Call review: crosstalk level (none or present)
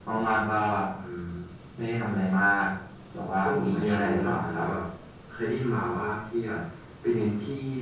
present